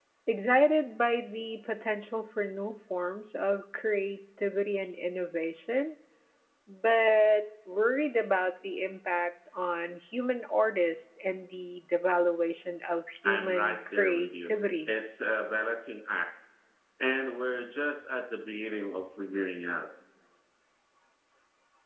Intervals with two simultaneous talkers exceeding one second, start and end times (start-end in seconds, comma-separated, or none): 13.2-14.5